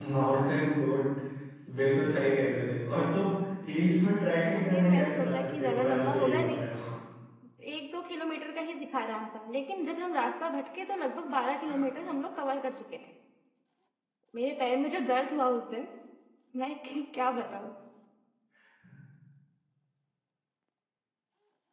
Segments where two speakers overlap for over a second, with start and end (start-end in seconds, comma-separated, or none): 4.6-6.7